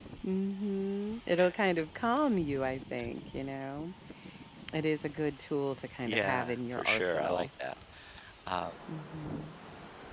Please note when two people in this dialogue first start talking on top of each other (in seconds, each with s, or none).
6.0 s